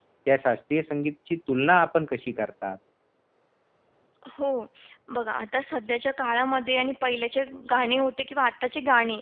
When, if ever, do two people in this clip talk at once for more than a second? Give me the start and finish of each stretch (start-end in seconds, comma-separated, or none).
none